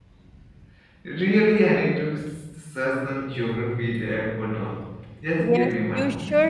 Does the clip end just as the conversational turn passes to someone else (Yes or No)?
Yes